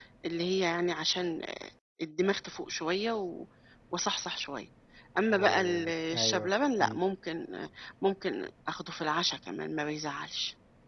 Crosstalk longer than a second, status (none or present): present